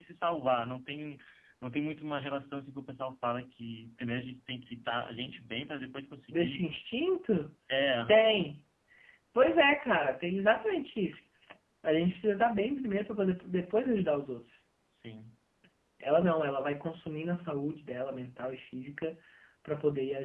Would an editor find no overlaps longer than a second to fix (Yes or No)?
Yes